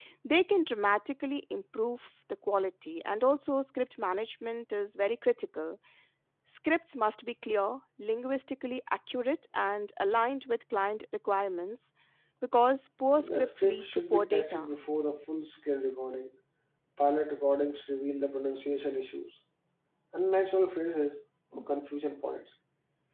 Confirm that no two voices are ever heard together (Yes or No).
No